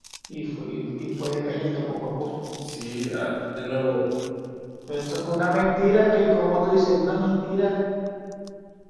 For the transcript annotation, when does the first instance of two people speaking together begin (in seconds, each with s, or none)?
none